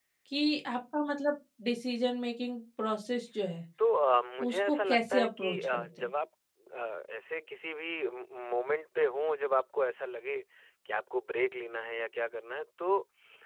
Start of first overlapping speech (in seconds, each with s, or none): 4.4 s